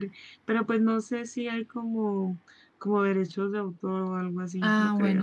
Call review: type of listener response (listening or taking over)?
taking over